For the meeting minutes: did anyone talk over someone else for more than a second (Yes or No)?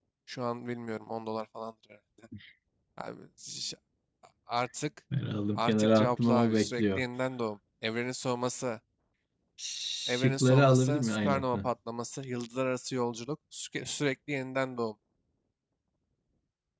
Yes